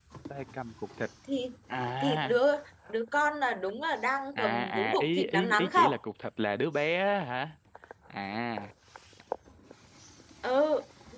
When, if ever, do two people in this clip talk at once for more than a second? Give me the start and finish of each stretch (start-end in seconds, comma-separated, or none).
4.4-5.9